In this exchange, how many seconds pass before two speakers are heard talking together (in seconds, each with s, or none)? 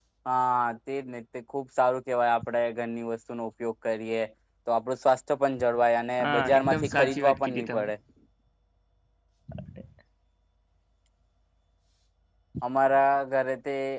6.2 s